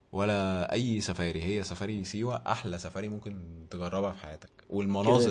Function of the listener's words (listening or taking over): listening